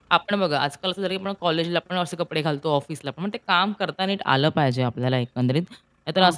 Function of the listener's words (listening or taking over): listening